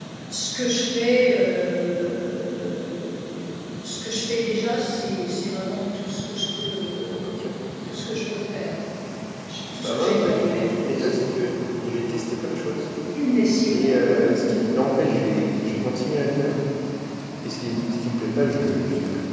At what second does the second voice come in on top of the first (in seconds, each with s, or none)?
9.8 s